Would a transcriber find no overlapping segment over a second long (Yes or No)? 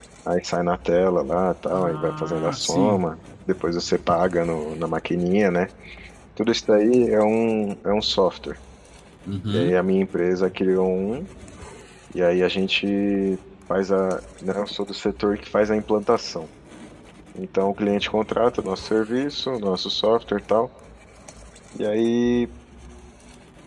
No